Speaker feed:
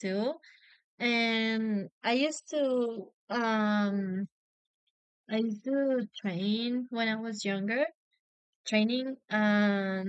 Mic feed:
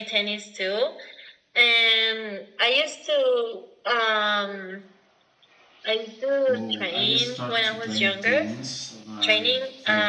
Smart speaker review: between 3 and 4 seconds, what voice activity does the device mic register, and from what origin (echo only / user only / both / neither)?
echo only